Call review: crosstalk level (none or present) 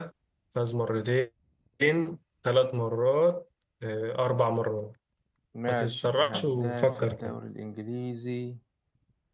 present